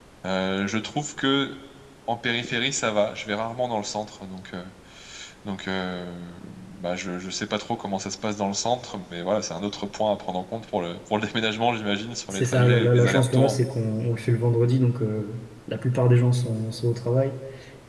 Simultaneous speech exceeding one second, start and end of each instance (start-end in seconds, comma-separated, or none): 12.3-13.6